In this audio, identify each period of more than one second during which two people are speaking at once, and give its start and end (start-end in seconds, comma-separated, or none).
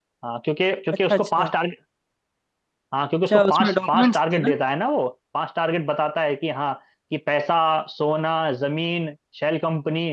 3.3-4.5